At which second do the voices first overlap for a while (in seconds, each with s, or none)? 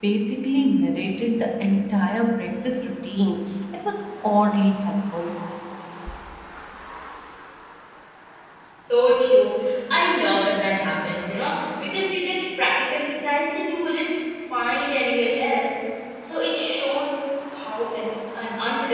none